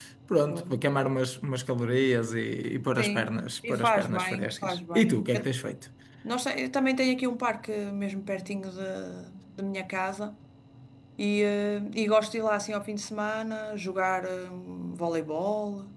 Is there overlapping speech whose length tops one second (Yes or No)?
Yes